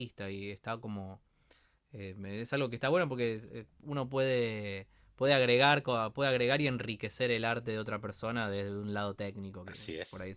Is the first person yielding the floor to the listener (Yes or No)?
Yes